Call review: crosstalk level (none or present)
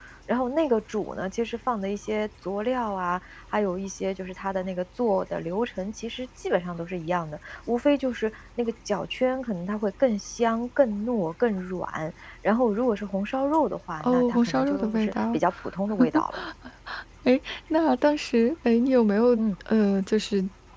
present